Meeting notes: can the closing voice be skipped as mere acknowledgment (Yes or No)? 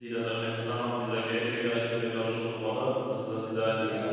Yes